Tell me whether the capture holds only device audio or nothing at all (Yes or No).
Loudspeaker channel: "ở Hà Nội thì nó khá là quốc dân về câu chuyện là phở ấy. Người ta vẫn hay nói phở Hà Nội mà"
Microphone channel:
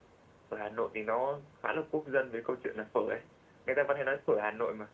Yes